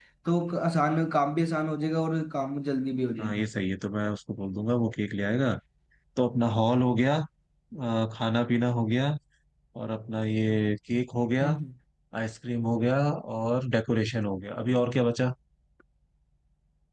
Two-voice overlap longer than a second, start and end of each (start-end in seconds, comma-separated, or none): none